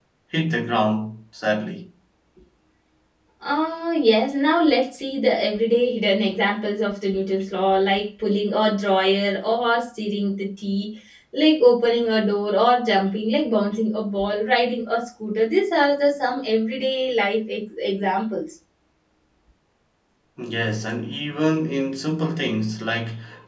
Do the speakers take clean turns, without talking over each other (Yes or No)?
Yes